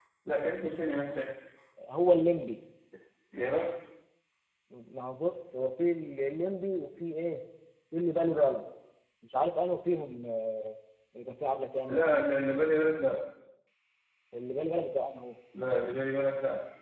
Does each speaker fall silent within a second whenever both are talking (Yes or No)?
Yes